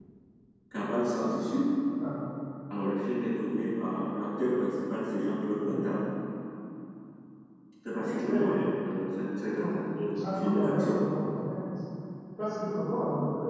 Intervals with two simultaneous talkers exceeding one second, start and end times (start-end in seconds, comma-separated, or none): 9.5-11.0